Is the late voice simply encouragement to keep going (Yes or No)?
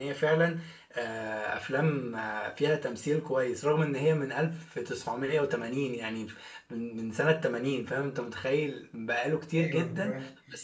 Yes